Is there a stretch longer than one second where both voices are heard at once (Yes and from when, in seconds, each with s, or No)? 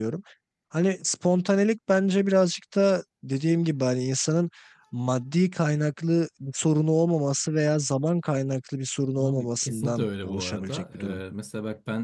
Yes, from 9.2 s